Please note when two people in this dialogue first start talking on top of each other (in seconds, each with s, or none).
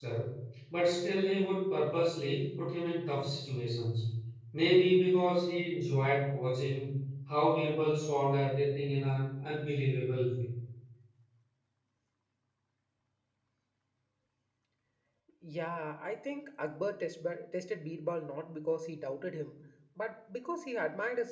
none